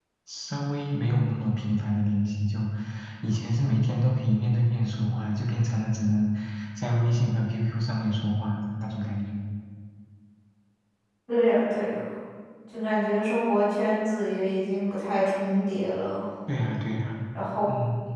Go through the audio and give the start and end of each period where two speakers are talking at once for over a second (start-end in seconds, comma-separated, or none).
none